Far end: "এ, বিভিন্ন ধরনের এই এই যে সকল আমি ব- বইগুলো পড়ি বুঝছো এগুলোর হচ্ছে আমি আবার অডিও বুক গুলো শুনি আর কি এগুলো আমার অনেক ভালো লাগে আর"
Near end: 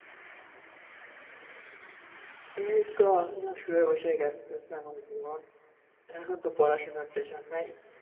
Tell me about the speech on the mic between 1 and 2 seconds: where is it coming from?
neither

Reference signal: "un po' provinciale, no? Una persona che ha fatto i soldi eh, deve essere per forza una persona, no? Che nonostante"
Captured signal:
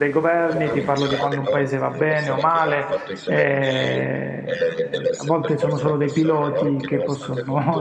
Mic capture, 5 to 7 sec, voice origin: both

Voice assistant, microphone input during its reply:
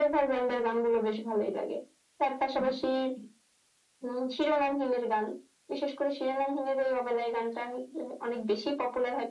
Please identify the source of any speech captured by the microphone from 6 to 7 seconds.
echo only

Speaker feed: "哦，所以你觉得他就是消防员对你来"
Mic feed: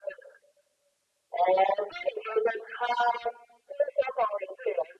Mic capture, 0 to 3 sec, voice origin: echo only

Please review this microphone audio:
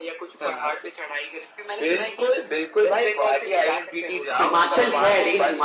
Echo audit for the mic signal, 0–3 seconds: echo only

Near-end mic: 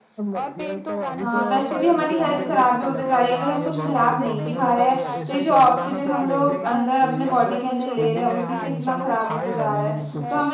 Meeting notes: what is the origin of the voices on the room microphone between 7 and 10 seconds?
both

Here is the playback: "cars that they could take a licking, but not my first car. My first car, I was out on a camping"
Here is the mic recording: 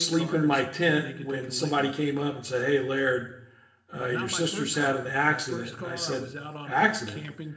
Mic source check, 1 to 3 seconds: both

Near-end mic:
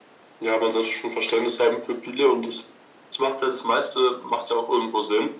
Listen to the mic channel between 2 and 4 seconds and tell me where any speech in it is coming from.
echo only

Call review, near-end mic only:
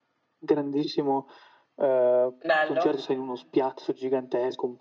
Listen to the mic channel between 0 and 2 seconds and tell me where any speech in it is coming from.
echo only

